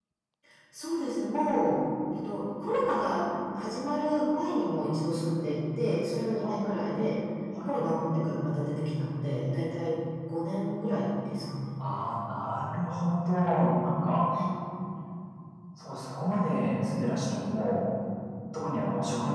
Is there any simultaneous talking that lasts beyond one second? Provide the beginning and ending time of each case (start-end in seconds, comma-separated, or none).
none